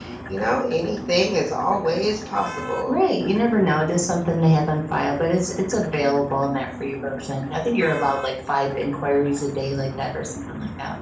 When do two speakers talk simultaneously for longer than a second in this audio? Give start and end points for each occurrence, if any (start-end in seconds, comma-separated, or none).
none